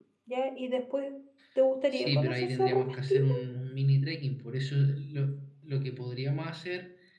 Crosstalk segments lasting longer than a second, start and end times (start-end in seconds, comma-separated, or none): 1.9-3.4